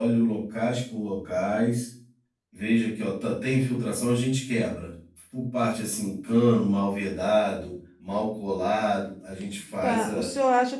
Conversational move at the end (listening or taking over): taking over